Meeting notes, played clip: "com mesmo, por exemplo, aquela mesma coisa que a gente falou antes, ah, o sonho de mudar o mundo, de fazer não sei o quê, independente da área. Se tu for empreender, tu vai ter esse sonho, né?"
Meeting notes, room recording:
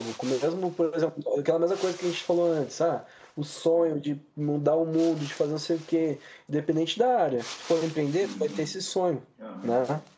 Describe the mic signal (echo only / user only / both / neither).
both